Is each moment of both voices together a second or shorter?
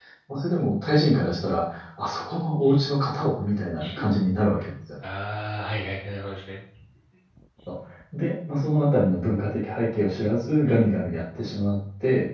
Yes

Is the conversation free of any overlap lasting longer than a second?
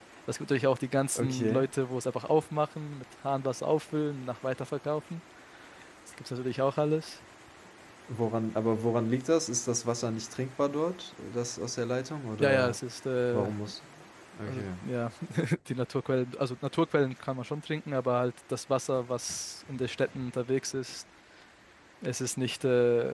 Yes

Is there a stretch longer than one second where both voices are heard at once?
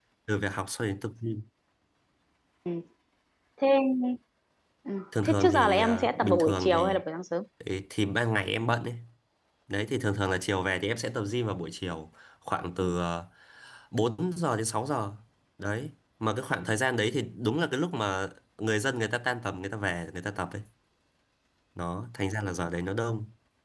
Yes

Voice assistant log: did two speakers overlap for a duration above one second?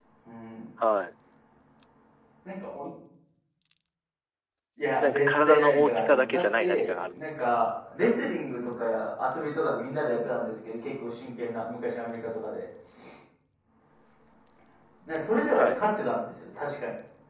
Yes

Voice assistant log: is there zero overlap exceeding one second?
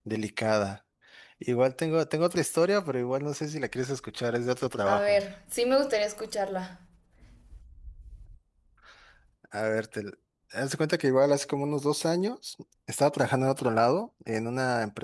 Yes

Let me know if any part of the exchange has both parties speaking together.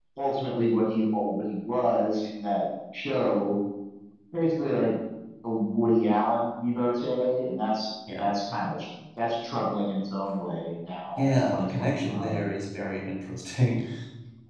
Yes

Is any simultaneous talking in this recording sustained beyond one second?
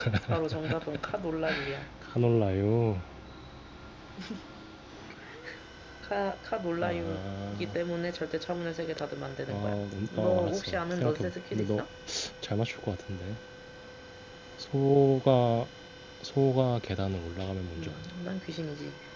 Yes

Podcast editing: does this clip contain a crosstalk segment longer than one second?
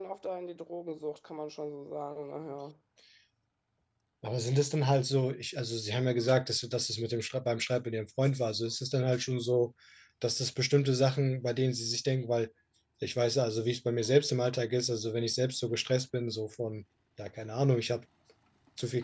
No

